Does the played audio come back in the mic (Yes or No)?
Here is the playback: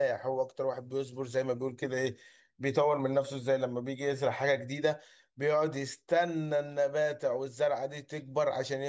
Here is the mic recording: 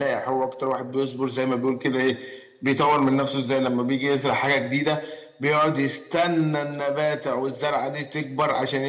Yes